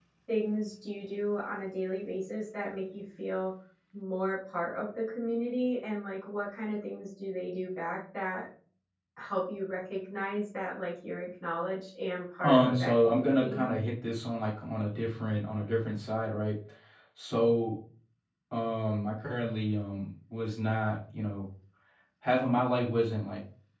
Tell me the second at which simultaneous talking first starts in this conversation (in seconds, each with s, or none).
12.4 s